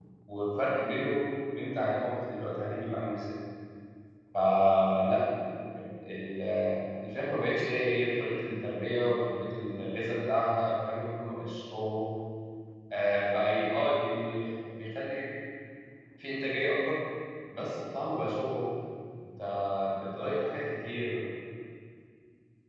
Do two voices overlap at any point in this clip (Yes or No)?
No